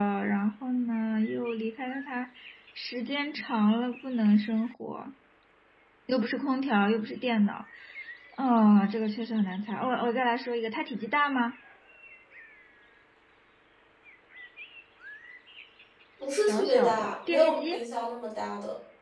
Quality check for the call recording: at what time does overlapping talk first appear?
16.4 s

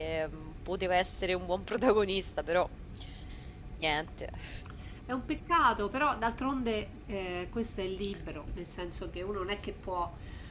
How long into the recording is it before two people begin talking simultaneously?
none

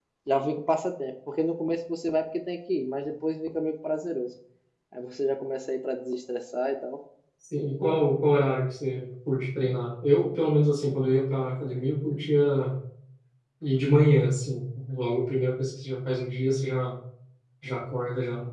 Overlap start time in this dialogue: none

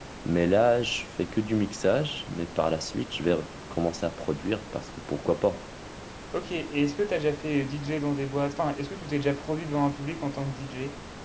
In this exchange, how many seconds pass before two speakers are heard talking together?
none

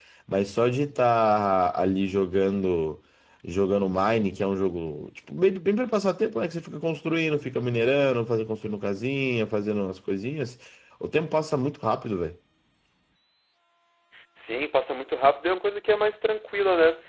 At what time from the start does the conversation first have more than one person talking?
none

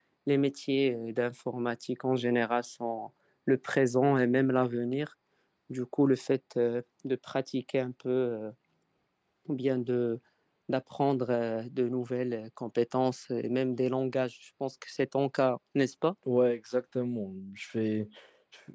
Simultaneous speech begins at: none

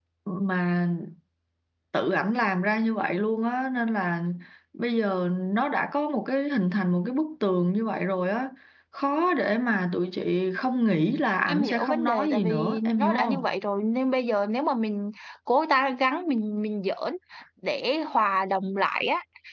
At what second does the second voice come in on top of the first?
11.5 s

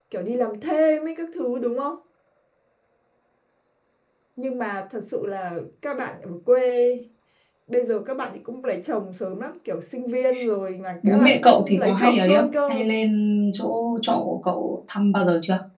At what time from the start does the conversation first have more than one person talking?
11.0 s

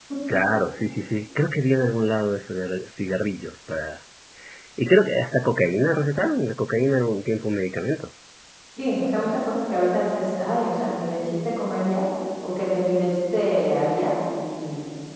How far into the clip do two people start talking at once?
none

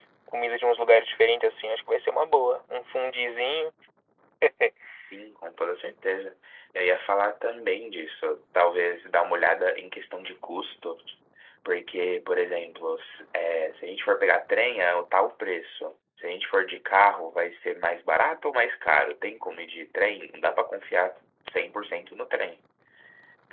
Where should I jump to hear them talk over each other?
none

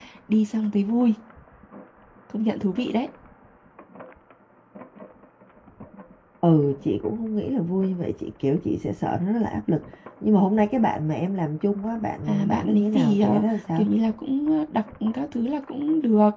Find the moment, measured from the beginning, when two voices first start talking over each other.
12.3 s

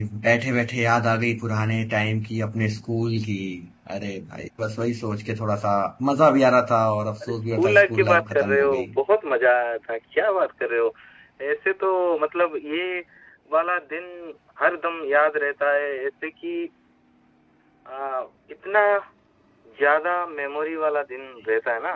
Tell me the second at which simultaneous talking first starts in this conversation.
7.2 s

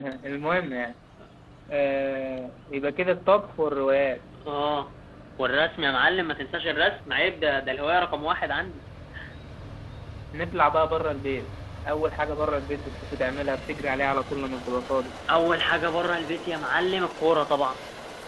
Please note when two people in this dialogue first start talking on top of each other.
none

